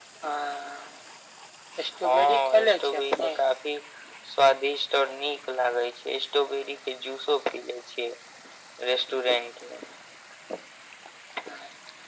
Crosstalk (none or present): present